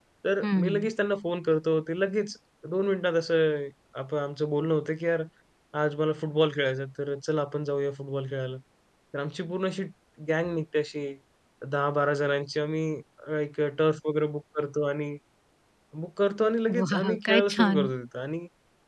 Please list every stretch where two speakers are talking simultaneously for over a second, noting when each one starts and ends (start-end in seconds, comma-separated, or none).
16.7-17.9